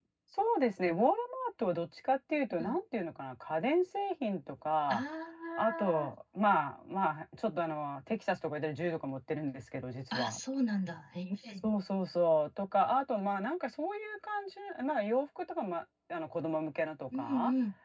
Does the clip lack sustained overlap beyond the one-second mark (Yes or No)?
Yes